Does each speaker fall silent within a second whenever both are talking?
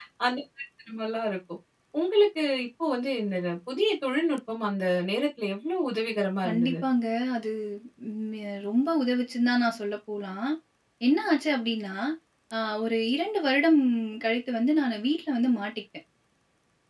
Yes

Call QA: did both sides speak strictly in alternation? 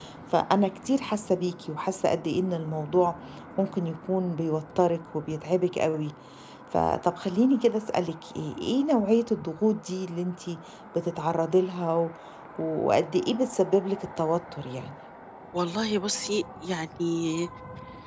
Yes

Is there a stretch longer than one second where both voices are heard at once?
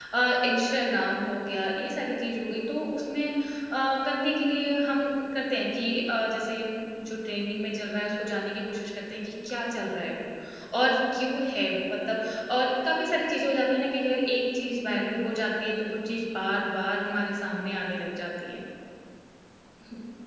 No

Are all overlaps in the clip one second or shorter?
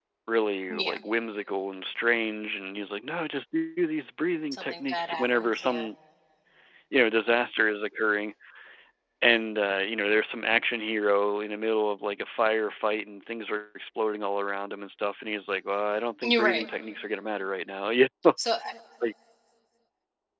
No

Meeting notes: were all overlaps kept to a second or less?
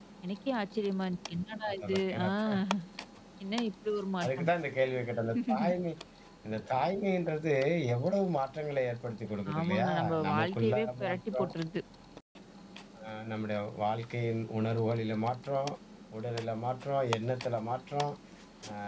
No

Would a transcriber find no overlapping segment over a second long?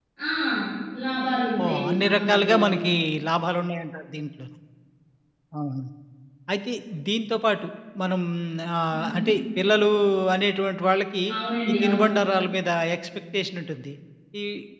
No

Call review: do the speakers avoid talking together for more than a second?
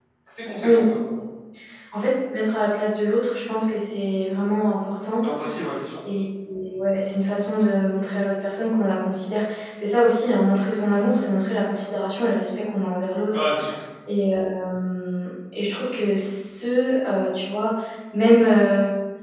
Yes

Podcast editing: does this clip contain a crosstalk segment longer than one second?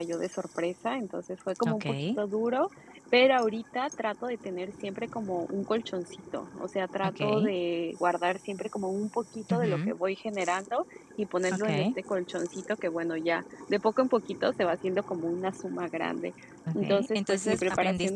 Yes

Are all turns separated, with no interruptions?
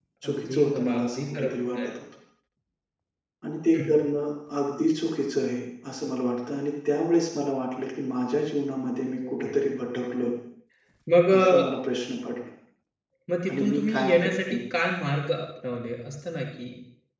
No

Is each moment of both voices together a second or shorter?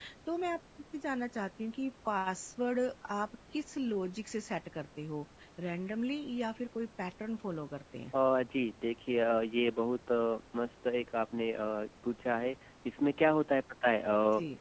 Yes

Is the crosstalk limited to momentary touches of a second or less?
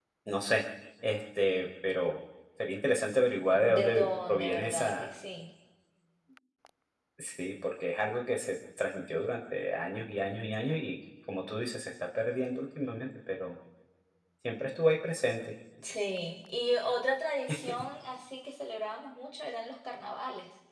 No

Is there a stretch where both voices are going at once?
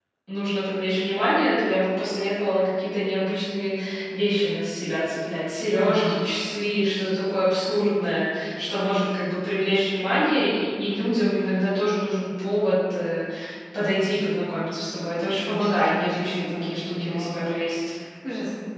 Yes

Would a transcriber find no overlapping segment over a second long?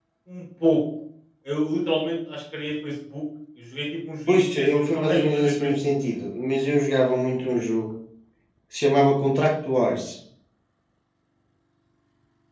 No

